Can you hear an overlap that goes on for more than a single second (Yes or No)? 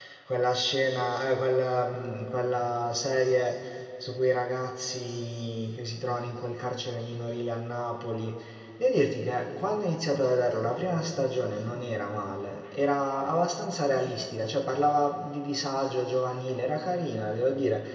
No